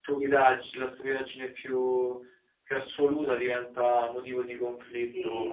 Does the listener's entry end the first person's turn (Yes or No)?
Yes